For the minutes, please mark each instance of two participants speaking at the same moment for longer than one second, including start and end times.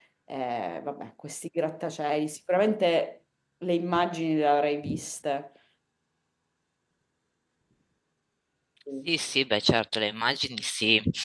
none

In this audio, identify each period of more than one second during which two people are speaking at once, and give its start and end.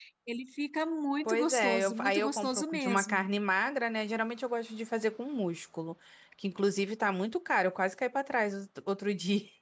1.2-3.3

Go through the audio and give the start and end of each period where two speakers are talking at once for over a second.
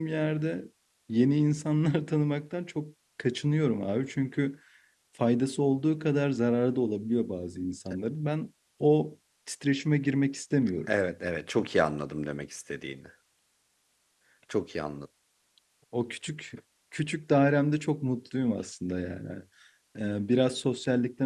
none

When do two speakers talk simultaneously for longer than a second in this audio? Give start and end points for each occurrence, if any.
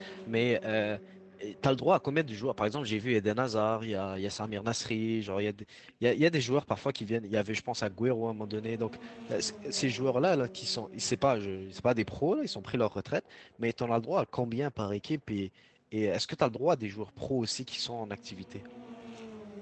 none

